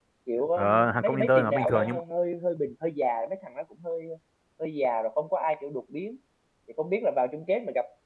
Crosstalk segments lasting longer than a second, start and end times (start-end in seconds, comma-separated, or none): 0.6-2.0